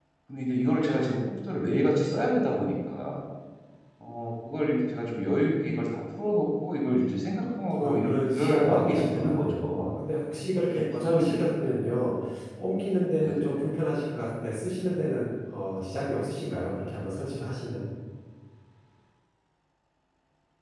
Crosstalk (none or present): present